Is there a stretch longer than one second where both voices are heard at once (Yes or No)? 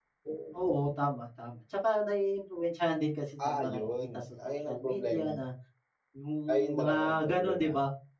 Yes